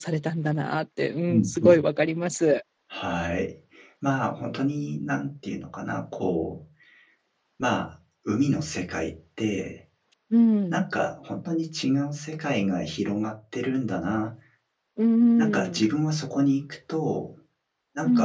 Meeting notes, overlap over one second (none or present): none